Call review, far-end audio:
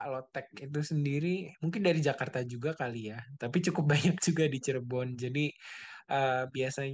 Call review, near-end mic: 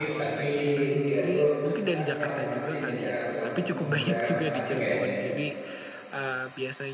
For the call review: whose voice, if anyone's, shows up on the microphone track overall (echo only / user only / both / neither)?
both